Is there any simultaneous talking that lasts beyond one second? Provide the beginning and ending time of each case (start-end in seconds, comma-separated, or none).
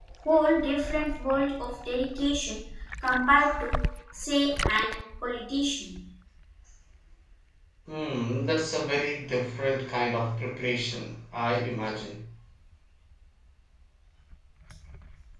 none